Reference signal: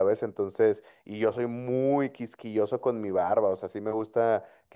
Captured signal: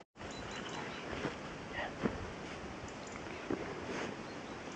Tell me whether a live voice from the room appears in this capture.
No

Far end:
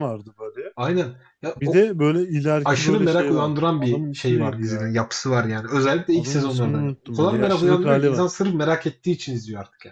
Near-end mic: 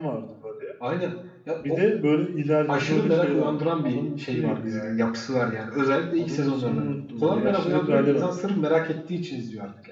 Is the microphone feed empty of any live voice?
Yes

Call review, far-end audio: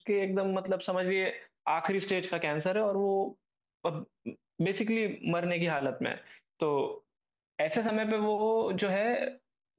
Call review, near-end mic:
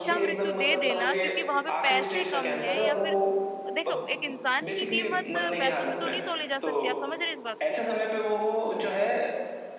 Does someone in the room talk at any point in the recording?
Yes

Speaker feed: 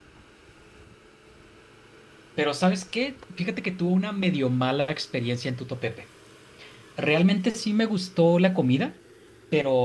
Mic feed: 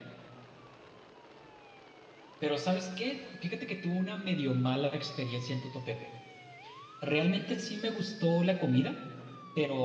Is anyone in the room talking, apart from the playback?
No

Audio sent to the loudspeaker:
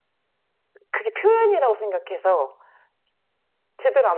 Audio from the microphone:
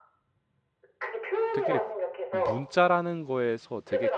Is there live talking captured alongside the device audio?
Yes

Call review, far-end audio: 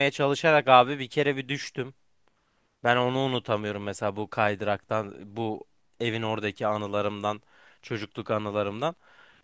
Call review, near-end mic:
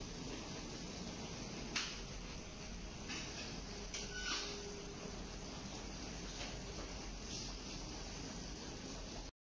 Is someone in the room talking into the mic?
No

